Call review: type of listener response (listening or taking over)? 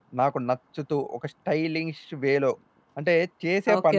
taking over